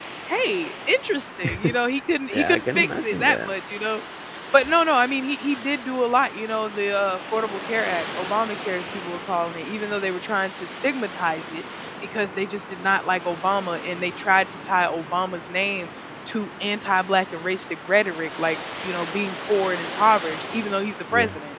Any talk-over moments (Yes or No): Yes